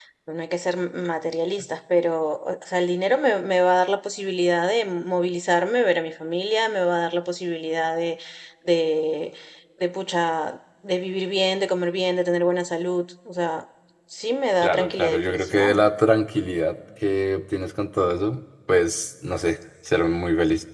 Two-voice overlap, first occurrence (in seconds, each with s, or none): 14.6 s